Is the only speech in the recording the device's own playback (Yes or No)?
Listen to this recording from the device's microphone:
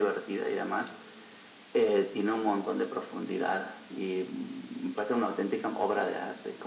Yes